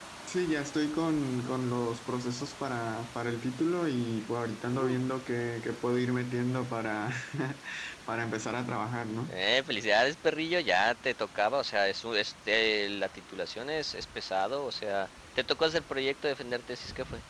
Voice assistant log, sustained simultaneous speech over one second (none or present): none